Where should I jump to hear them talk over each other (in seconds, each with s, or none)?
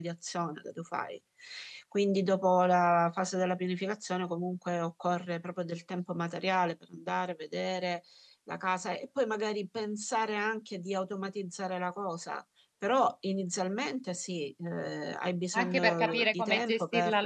15.5 s